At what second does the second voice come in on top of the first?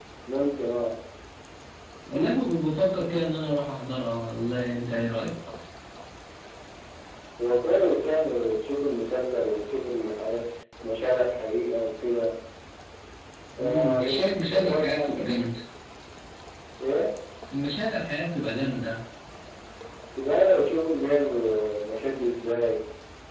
13.6 s

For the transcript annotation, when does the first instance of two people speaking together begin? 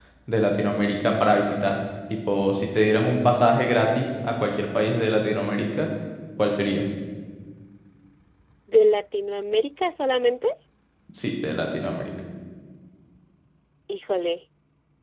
none

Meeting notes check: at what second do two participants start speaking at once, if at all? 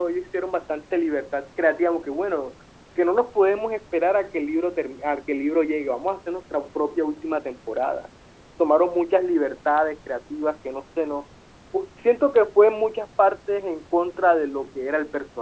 none

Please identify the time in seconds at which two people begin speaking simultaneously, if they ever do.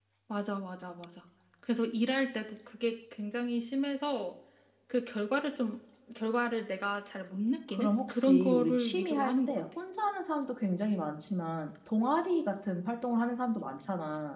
7.7 s

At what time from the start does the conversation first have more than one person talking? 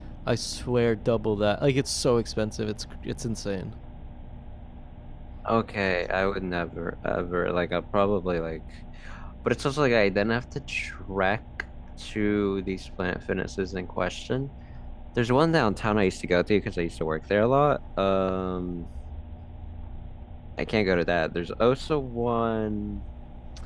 none

